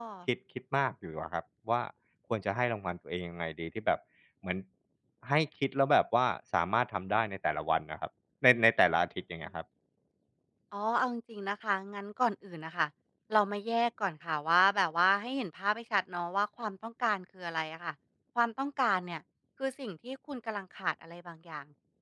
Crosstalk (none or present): none